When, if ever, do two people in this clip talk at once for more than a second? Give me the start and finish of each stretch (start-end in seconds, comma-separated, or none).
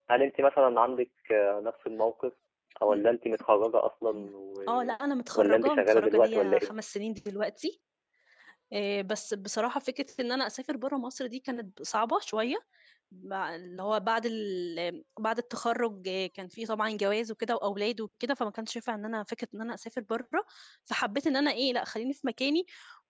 5.3-6.7